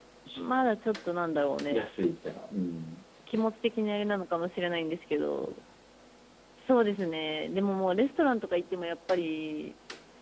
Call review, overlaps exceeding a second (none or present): none